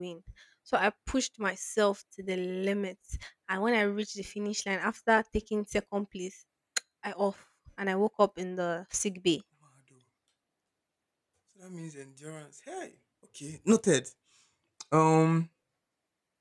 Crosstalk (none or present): none